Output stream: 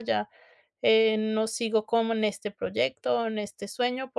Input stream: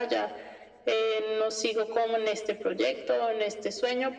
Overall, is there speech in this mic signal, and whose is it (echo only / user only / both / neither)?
echo only